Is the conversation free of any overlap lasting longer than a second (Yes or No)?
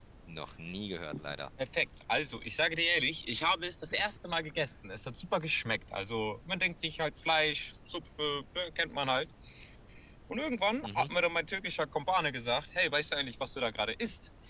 Yes